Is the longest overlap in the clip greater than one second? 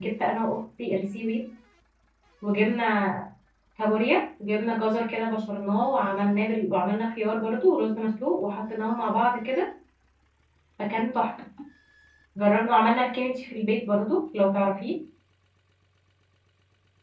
No

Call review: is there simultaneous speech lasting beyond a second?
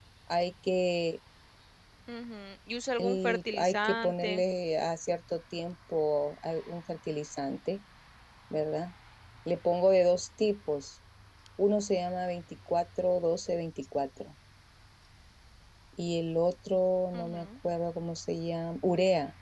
Yes, from 3.0 s

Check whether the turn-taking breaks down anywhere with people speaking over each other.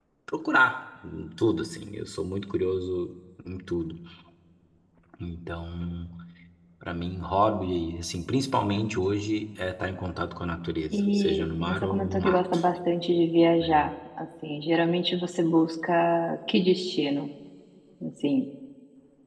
Yes, from 10.9 s

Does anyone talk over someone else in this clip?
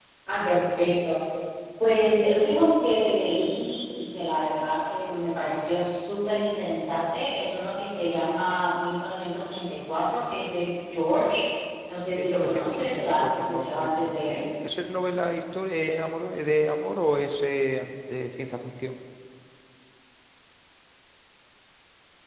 Yes, from 12.2 s

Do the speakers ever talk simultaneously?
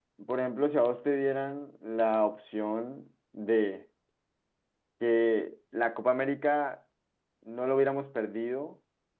No

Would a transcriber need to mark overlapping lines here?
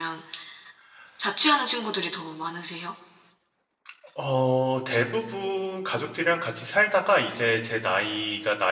No

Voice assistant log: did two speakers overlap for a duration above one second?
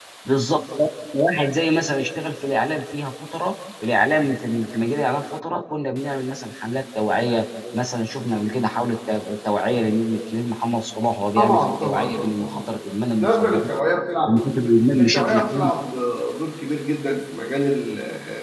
Yes, from 11.4 s

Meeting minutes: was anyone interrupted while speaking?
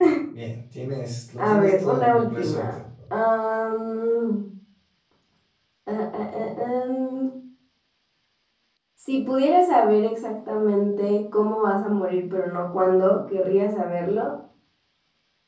Yes, from 1.4 s

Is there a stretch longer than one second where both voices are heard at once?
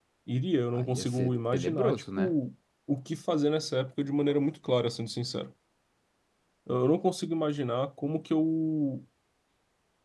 Yes, from 0.7 s

